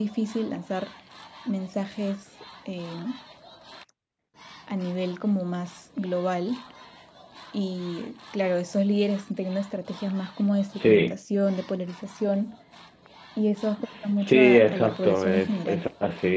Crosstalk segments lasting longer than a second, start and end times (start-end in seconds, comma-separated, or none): 14.2-15.8